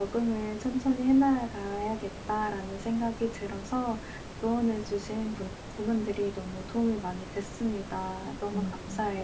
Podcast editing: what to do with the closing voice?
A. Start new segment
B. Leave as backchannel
A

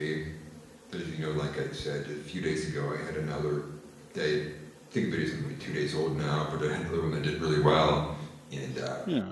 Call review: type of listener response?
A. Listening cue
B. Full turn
A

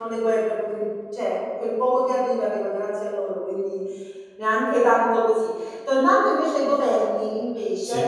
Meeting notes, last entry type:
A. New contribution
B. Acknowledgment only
B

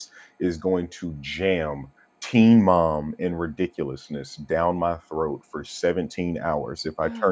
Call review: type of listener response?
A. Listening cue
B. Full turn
B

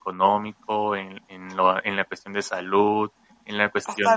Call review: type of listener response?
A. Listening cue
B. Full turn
B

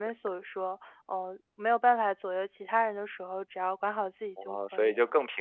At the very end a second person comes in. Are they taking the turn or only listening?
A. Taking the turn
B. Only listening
A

